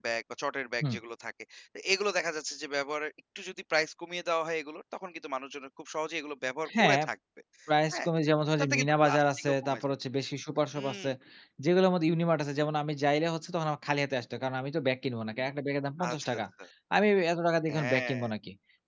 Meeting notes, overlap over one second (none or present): present